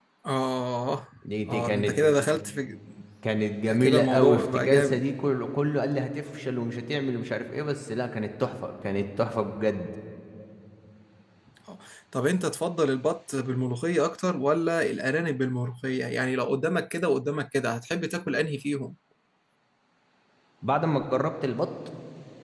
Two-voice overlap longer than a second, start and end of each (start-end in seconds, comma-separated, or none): 3.8-5.0